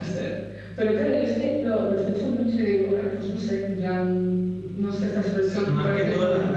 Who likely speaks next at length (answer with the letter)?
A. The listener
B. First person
A